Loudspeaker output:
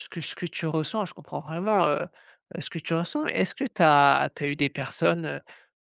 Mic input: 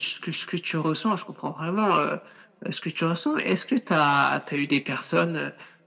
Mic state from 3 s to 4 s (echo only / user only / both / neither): echo only